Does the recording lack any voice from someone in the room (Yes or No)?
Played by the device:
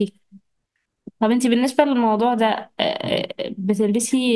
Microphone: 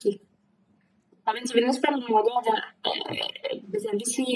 Yes